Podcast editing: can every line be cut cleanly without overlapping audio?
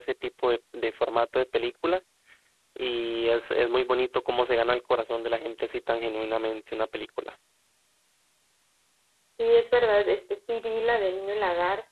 Yes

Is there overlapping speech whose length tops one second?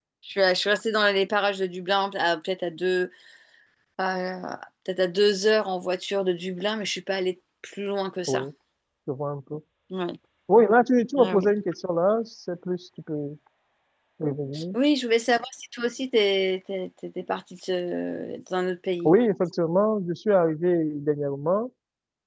No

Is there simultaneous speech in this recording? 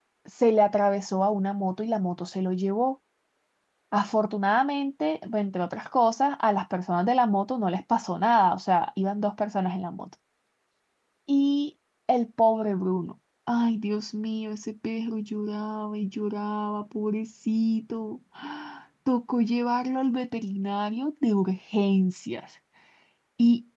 No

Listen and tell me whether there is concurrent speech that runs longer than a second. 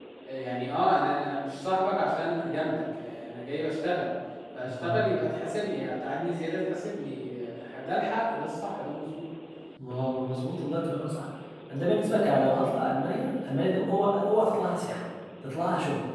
No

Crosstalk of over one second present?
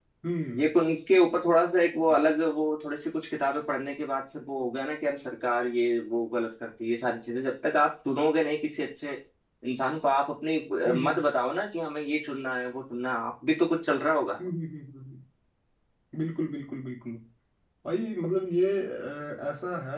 No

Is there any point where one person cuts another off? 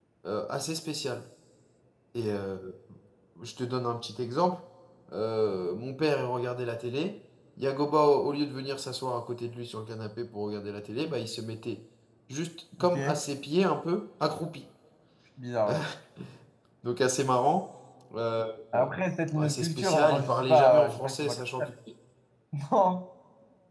Yes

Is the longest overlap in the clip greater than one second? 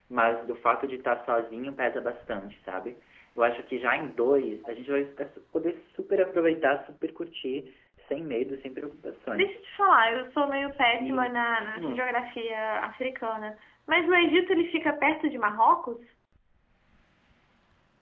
No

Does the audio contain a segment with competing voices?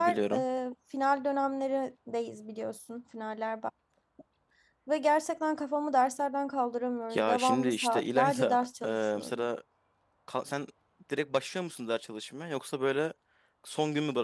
Yes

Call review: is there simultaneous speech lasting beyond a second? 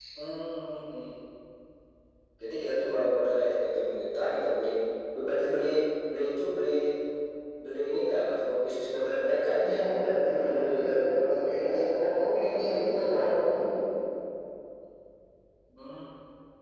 No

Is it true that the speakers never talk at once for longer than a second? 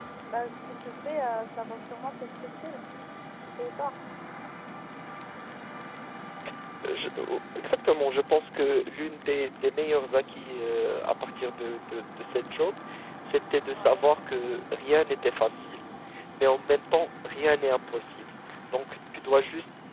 Yes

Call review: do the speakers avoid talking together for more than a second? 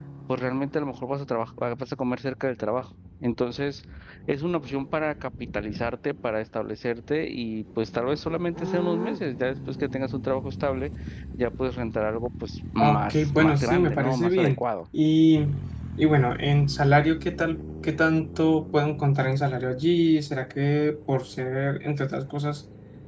No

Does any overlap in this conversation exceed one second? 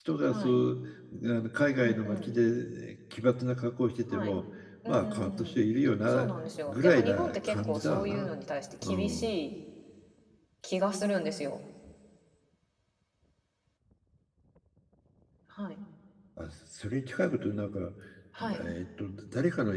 Yes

